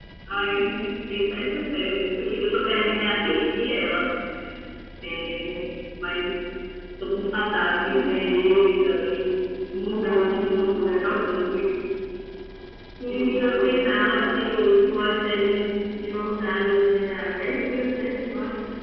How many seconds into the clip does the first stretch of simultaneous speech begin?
13.1 s

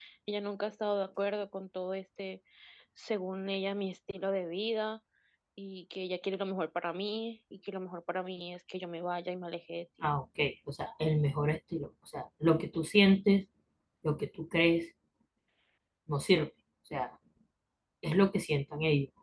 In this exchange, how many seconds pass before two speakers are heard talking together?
none

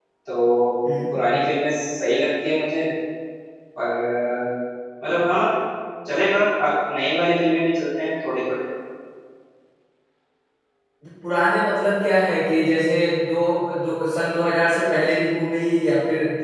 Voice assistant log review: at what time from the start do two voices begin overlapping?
none

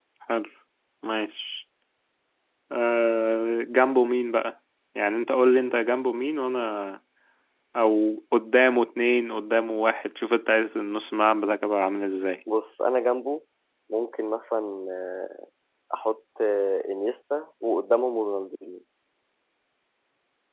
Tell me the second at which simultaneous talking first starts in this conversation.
none

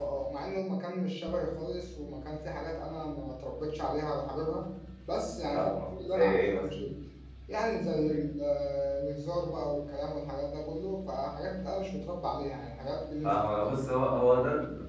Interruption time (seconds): 5.5 s

